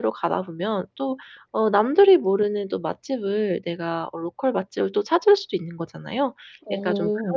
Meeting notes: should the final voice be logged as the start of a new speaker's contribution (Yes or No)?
No